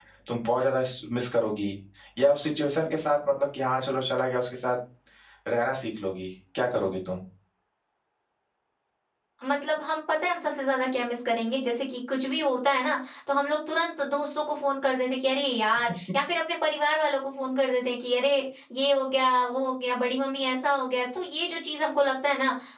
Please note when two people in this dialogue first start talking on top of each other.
none

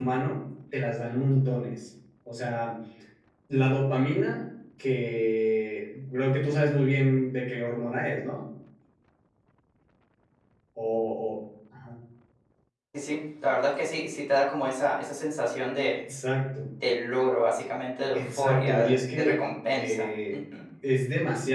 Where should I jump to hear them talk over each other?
18 s

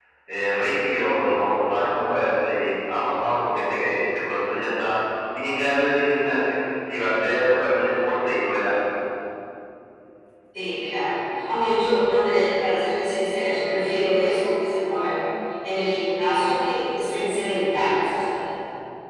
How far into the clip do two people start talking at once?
none

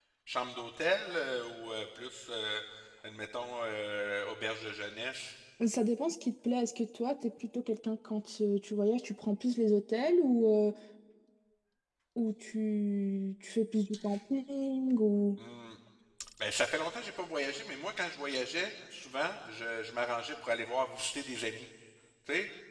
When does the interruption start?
none

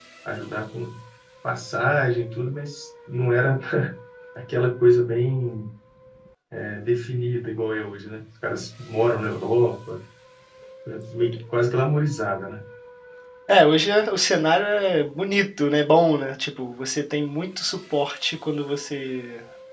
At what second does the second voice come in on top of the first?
none

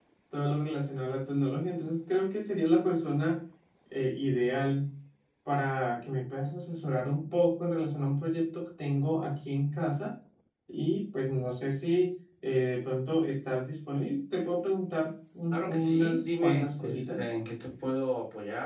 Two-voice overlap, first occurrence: 16 s

